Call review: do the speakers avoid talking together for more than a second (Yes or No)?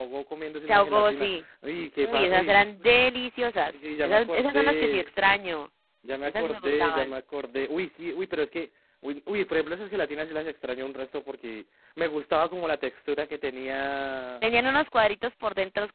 No